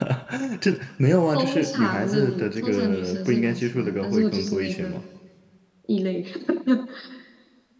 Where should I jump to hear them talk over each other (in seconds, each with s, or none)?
1.3 s